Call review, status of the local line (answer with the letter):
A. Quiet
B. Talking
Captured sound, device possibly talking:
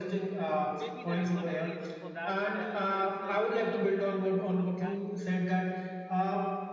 B